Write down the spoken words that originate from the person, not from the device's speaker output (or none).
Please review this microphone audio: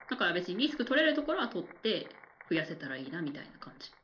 none